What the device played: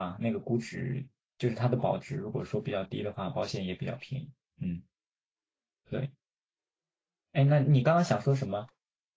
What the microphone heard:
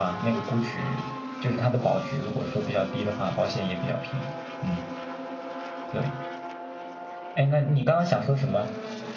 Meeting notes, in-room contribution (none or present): none